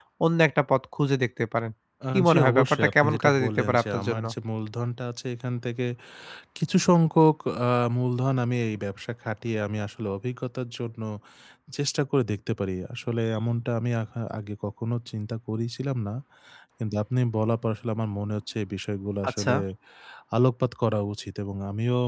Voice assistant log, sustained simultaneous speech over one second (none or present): present